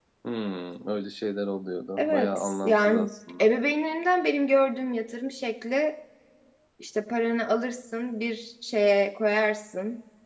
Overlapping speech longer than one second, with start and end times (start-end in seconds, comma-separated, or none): 2.0-3.5